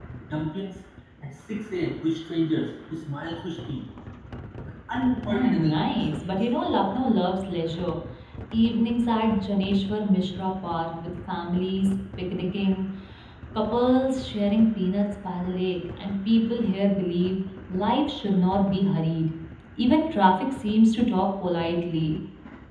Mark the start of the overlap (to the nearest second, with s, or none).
5 s